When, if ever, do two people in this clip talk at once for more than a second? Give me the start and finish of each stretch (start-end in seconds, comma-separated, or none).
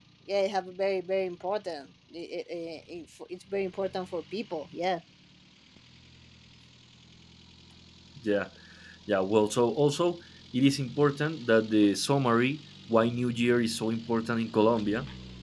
none